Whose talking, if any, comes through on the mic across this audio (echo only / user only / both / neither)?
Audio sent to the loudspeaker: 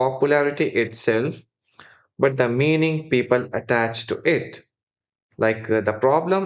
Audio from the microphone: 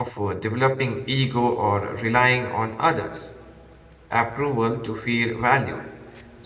user only